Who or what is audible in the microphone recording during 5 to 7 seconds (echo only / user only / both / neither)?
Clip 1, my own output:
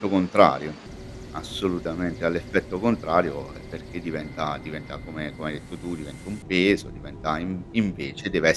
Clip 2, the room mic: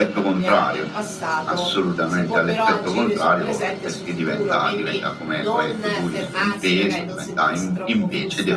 both